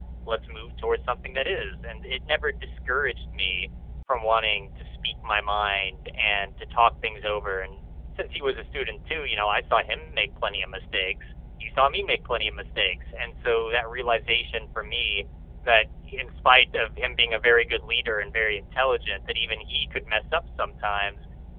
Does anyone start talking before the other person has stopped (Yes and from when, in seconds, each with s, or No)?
No